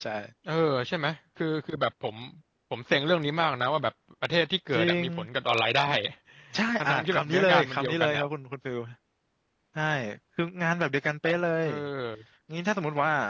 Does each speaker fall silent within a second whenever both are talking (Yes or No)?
No